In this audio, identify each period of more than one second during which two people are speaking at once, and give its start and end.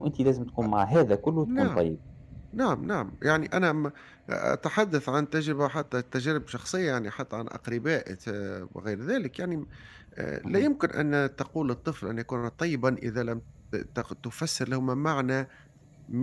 none

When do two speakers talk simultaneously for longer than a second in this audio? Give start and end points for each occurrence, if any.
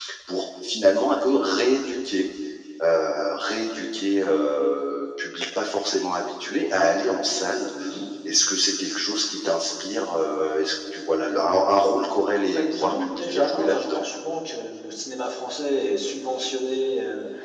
12.5-14.1

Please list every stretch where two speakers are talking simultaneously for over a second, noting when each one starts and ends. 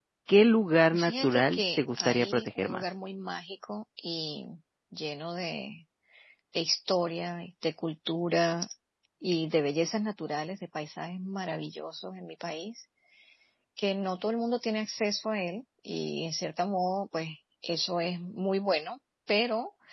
0.9-2.9

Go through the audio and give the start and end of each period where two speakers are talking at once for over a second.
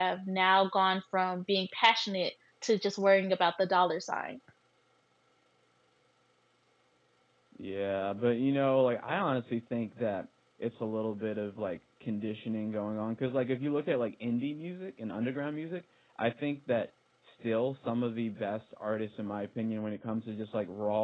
none

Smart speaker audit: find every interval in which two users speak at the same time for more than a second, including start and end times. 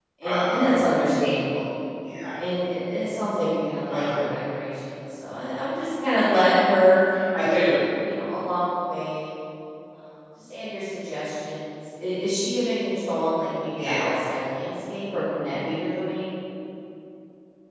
none

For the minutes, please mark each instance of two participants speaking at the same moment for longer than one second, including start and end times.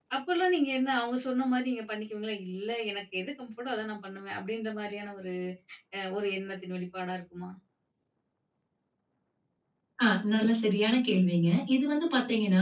none

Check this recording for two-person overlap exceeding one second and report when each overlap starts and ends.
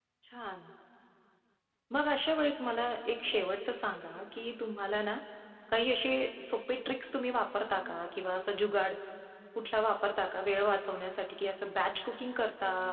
none

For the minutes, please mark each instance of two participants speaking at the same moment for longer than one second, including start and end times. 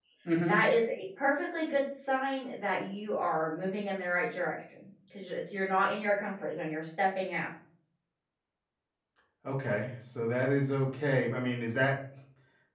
none

